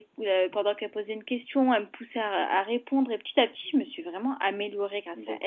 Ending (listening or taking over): taking over